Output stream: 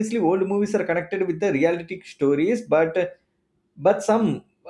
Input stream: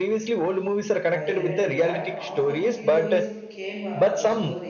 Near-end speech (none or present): present